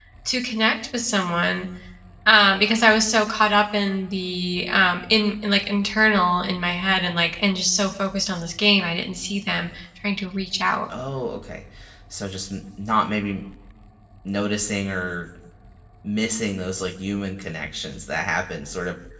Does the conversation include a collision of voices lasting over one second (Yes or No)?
No